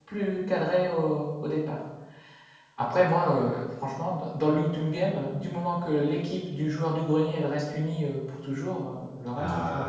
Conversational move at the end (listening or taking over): taking over